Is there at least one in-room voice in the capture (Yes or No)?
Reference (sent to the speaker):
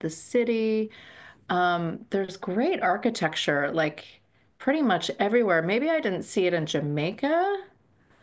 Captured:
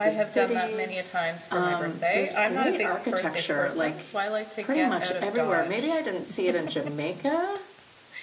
Yes